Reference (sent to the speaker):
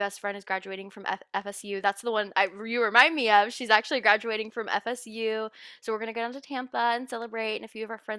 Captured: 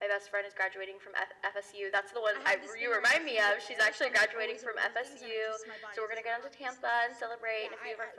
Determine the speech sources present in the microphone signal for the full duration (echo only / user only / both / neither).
both